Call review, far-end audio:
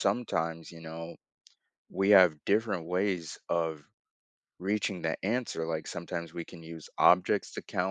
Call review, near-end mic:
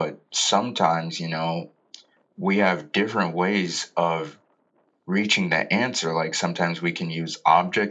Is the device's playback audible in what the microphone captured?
Yes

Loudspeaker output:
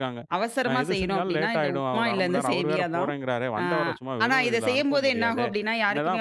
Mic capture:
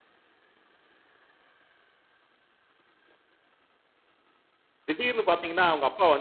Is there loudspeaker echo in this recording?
No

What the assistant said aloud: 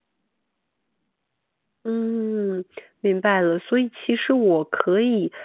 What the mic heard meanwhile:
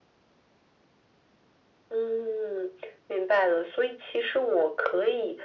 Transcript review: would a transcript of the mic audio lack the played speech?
No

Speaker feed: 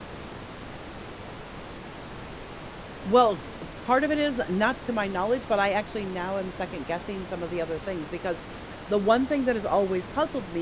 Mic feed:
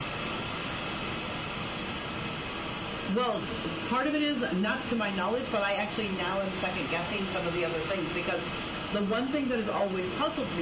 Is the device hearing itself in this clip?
Yes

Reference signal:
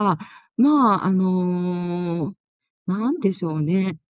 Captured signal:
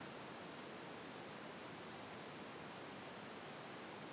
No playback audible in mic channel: Yes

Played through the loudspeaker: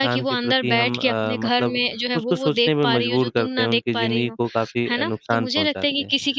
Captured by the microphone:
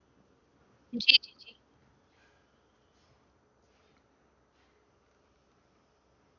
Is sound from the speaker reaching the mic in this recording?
No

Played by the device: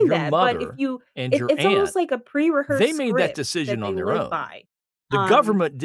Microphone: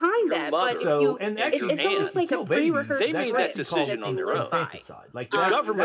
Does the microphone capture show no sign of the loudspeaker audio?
No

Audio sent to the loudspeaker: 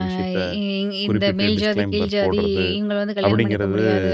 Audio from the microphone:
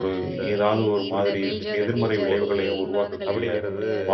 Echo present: Yes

